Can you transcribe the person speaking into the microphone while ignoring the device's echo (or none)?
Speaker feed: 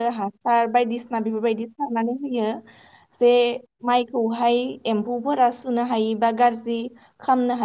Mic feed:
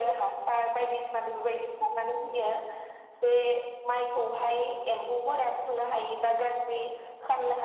none